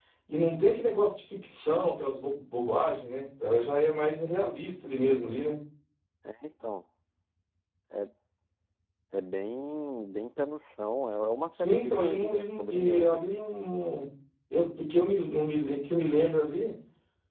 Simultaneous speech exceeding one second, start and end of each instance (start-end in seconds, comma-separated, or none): 11.6-13.2